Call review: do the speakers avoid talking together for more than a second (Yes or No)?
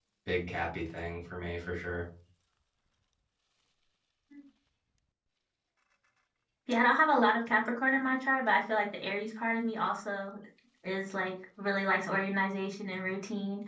Yes